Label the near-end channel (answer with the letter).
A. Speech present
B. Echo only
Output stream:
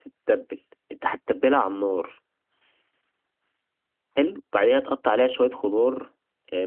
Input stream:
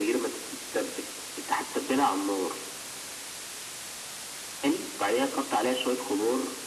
B